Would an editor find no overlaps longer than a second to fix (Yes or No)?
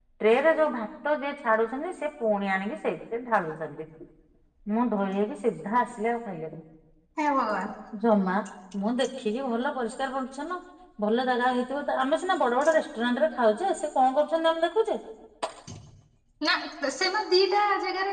Yes